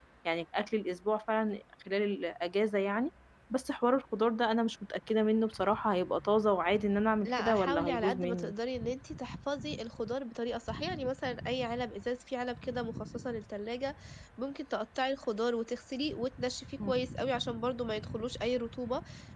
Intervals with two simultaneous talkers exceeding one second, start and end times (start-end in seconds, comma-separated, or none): 7.2-8.5